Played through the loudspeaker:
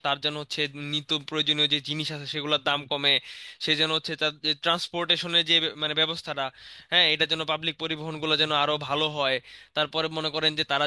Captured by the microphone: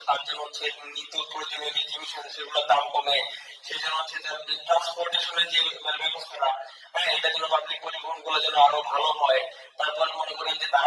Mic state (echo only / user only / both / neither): echo only